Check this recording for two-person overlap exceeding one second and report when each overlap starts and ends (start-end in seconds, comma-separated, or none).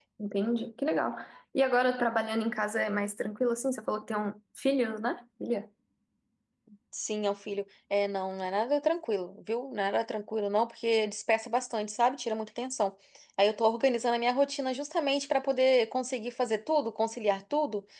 none